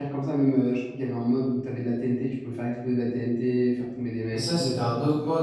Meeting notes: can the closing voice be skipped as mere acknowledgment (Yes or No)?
No